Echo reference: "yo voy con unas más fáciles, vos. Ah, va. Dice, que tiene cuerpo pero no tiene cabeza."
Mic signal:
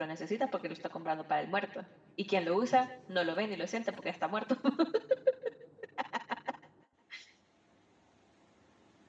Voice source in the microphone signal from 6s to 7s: neither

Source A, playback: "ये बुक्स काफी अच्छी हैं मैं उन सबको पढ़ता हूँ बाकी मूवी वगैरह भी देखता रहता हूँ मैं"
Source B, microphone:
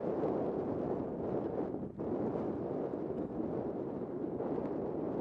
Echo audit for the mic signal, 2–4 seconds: neither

